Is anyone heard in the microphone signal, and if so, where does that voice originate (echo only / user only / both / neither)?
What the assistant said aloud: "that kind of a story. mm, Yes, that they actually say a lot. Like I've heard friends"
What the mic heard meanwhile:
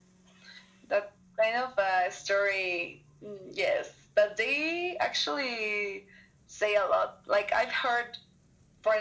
echo only